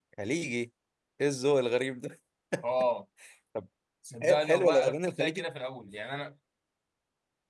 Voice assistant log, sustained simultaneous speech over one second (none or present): present